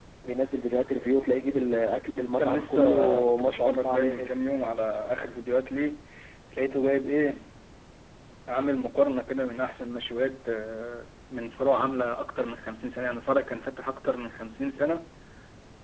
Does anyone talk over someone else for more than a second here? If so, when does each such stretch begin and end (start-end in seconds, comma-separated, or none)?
2.4-4.3